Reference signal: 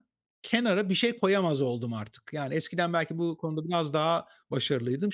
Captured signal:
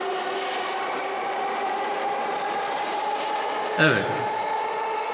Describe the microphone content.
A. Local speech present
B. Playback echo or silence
A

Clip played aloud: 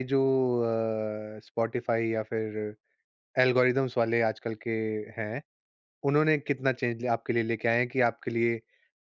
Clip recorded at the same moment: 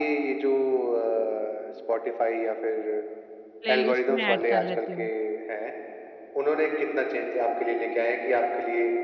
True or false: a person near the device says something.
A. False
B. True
B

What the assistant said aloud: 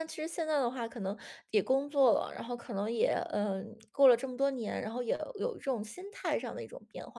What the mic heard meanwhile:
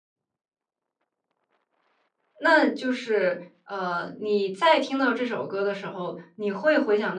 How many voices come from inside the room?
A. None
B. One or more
B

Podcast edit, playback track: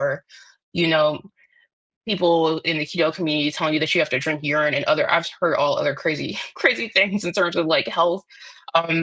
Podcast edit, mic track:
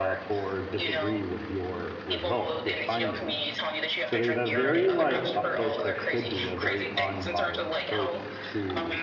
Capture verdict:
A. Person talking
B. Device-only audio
A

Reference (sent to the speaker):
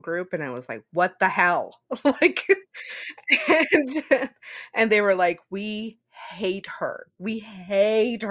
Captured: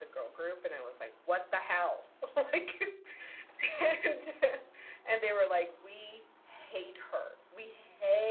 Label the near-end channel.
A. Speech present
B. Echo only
B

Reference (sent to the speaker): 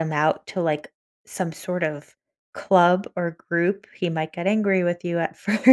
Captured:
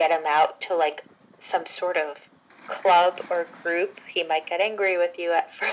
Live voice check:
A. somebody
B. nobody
B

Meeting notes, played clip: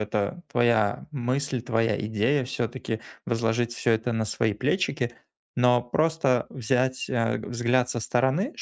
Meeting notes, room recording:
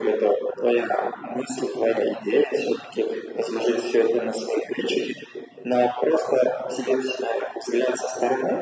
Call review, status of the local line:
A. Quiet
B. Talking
A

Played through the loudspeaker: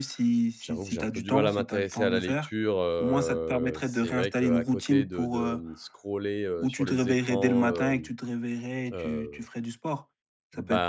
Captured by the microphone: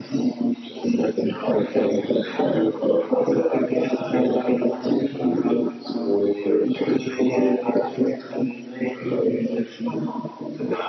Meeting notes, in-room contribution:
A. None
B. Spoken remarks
A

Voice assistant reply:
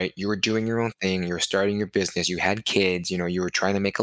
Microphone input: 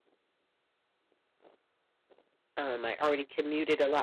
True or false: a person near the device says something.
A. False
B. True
B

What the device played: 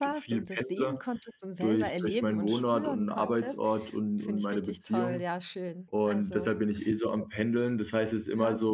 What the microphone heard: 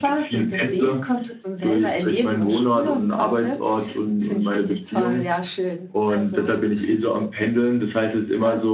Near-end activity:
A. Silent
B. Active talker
A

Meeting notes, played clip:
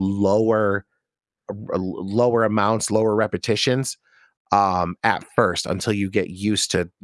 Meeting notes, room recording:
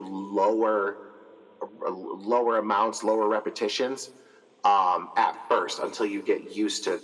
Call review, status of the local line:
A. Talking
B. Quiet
B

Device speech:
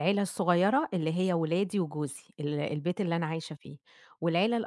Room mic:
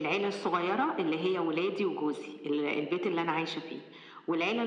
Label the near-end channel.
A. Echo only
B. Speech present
A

